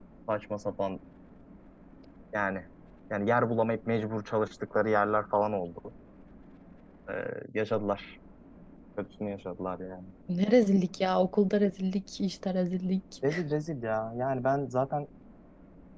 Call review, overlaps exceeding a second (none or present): none